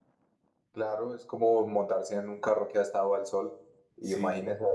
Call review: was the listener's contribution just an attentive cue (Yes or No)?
Yes